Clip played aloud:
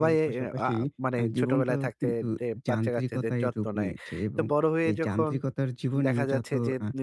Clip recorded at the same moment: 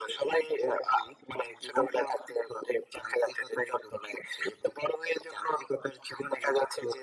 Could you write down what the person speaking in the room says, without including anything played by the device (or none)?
none